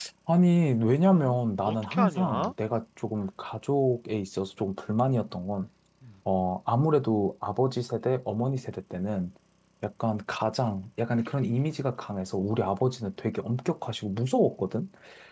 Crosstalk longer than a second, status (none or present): present